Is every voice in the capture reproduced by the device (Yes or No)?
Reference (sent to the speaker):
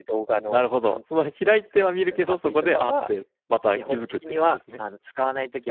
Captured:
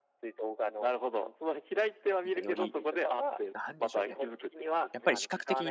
No